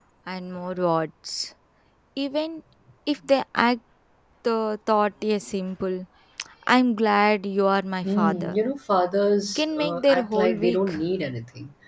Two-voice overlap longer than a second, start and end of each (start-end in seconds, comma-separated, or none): 9.6-10.9